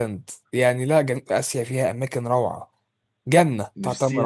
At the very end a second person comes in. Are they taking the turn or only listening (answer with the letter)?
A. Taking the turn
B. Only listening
A